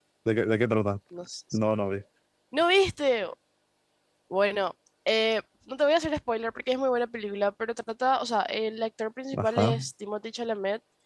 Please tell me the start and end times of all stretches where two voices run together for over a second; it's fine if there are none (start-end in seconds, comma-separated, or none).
none